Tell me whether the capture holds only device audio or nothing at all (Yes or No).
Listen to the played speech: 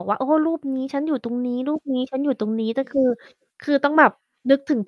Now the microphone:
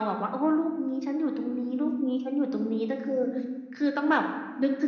Yes